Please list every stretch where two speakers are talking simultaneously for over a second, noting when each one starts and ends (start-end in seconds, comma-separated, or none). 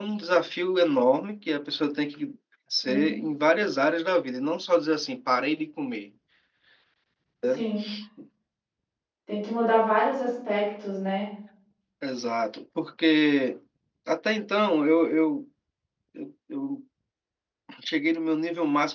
none